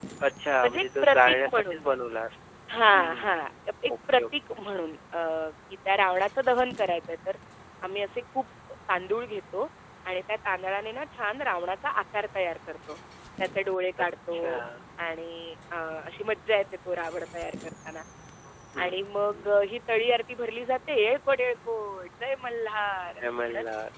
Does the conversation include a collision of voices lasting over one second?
Yes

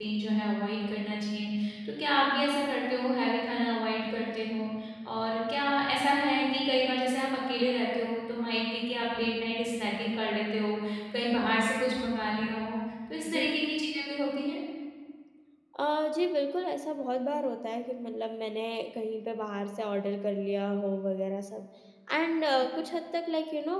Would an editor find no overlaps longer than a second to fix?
Yes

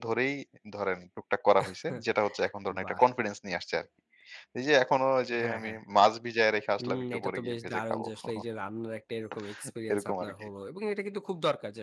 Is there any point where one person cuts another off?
Yes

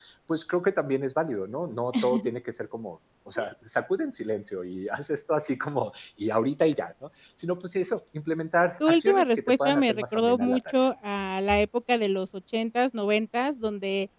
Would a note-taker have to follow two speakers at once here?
Yes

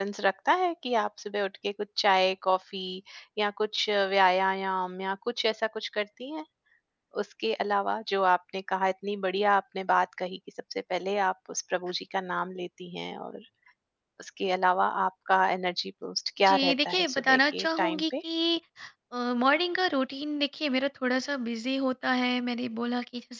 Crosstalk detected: Yes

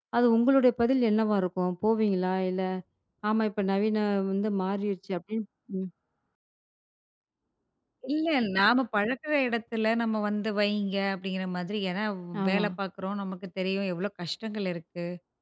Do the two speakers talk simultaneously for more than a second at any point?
No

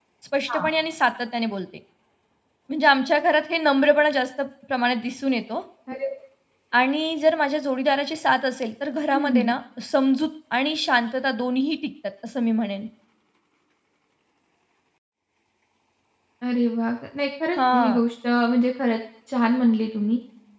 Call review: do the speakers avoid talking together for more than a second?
Yes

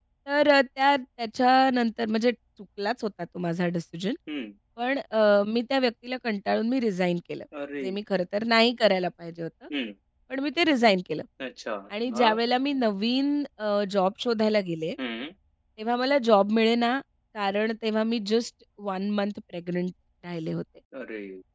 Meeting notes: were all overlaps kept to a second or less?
Yes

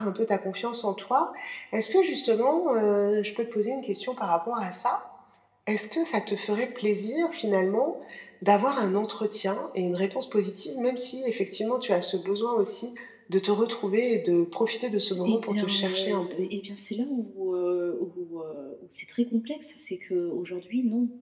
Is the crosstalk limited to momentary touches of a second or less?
No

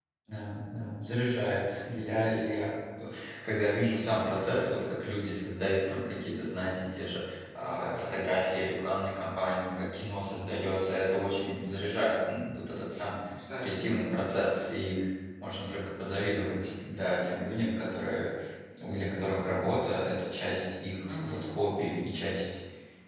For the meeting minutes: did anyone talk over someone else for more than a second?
No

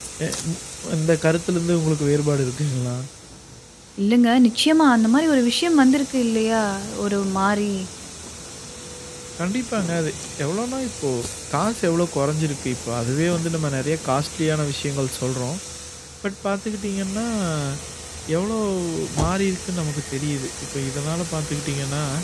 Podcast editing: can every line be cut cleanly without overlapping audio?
Yes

